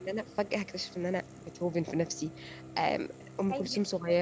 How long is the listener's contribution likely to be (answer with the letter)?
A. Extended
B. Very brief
B